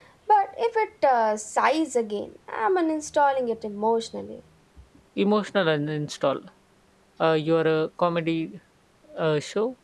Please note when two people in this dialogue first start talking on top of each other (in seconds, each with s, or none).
none